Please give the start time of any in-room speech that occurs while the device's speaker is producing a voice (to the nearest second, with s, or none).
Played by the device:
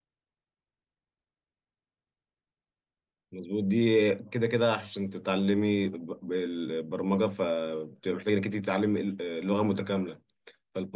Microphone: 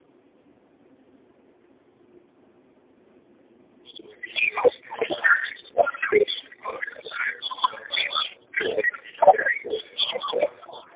none